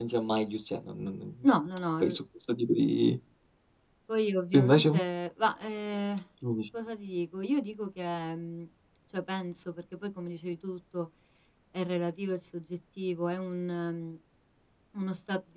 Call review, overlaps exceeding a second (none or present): none